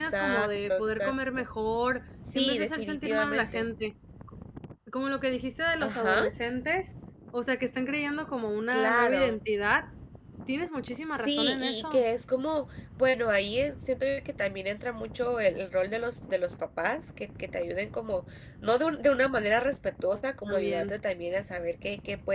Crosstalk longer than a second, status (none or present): present